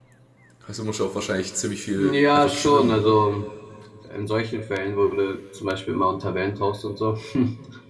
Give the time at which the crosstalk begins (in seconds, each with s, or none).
2.0 s